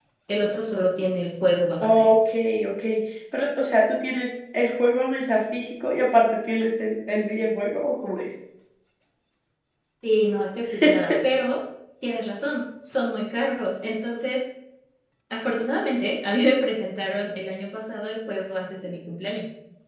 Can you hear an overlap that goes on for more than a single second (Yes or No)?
No